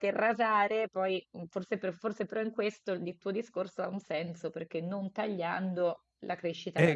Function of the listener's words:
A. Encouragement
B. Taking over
B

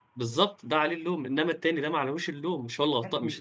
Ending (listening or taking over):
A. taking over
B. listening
A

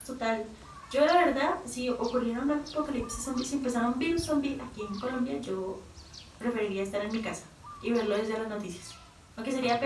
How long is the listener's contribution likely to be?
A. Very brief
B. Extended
A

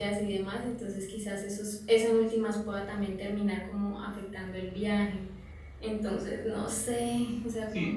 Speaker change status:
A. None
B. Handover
B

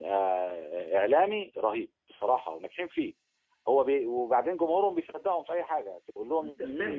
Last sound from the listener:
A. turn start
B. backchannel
A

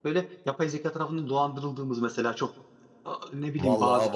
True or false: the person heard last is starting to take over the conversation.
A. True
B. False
A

